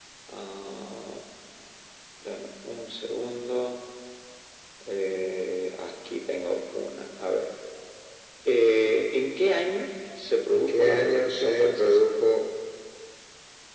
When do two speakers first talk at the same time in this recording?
10.5 s

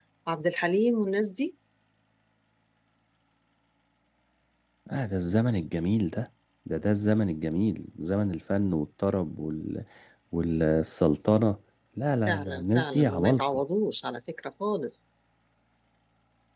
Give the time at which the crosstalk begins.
12.3 s

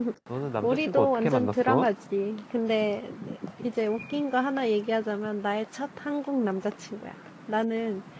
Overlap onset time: 0.6 s

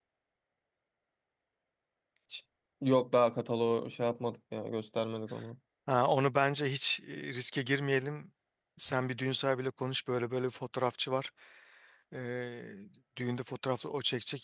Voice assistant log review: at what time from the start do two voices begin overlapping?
none

